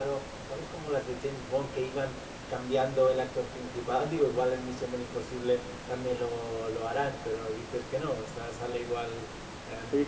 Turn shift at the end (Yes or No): Yes